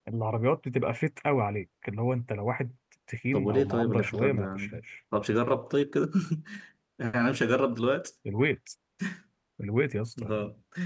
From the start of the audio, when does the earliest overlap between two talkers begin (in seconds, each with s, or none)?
3.3 s